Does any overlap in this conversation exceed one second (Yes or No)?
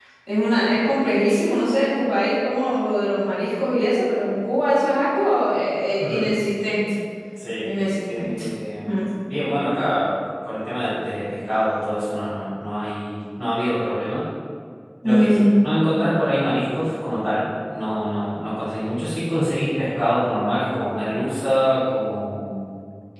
No